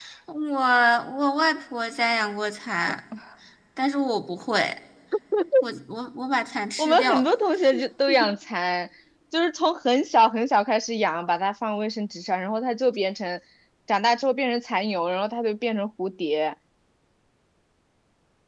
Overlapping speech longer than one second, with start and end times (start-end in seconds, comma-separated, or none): none